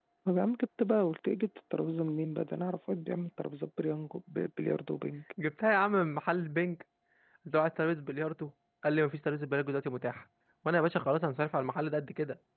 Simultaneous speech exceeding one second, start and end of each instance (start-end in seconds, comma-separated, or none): none